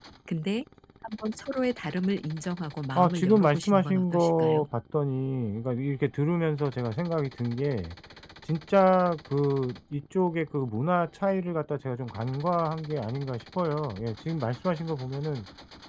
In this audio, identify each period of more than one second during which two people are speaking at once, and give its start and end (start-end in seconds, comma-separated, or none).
3.0-4.6